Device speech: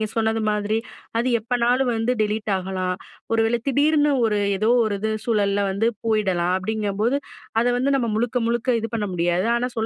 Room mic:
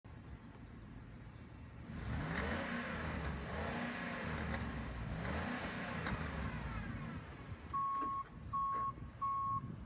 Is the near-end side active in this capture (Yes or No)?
No